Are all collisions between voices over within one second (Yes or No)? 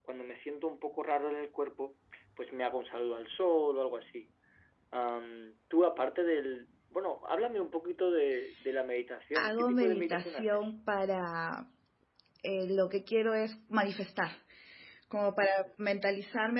No